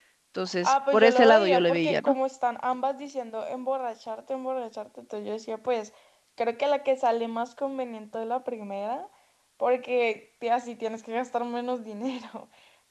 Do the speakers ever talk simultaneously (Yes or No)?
Yes